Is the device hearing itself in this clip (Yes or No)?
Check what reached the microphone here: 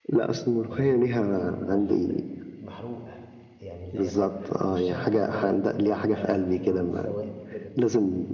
Yes